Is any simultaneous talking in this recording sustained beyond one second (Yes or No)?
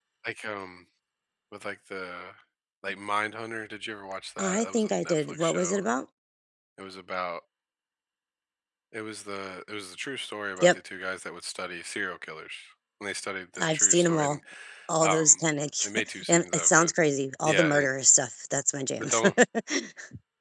Yes